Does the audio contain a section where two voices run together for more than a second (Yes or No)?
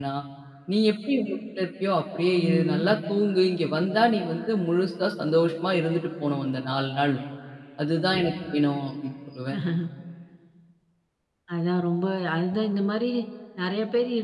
No